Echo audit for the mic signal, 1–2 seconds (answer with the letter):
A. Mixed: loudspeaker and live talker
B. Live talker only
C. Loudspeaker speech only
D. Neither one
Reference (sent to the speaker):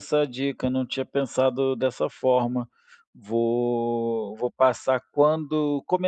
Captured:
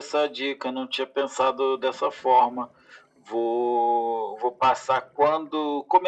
C